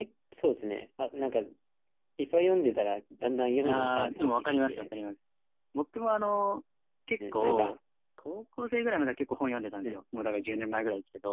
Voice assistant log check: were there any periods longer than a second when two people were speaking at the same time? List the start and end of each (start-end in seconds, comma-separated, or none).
3.6-4.8